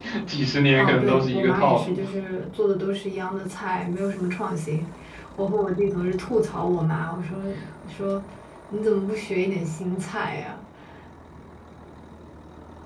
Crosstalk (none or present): present